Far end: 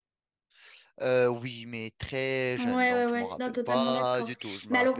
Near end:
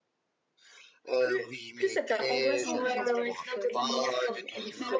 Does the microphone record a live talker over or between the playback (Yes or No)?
Yes